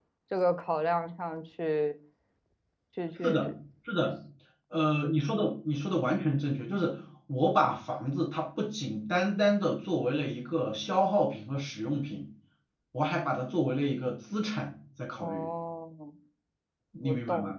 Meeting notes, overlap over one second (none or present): none